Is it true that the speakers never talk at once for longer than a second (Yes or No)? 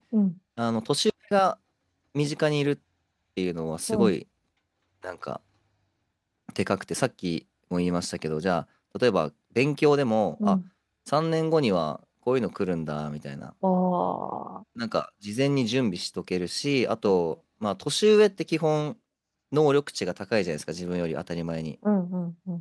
Yes